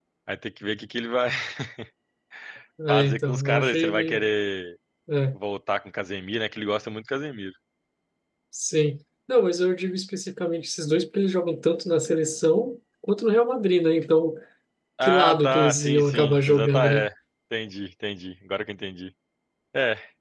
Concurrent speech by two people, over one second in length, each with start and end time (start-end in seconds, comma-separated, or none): 2.9-4.3, 15.0-17.1